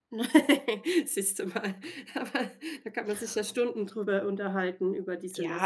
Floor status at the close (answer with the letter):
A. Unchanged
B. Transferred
B